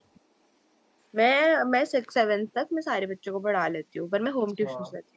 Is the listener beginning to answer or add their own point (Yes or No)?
Yes